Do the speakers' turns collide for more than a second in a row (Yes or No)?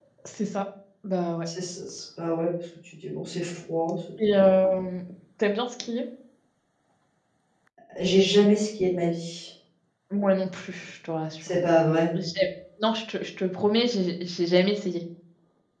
No